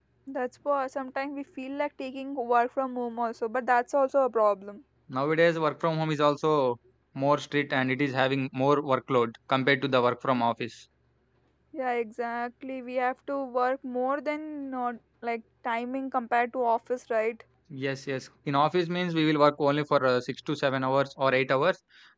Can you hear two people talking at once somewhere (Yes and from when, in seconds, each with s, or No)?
No